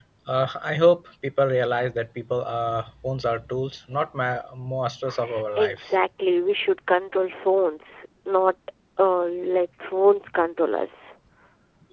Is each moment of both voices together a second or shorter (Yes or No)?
Yes